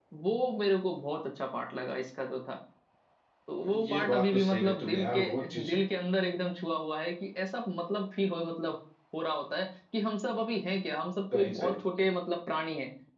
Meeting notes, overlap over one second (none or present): present